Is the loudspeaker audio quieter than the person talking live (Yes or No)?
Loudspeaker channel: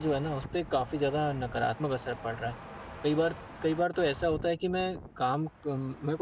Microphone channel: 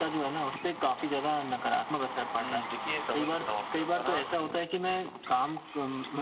No